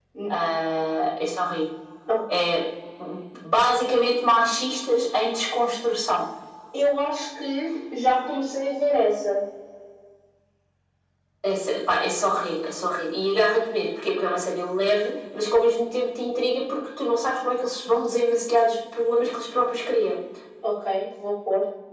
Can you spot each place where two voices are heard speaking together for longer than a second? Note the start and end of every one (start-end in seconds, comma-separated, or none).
none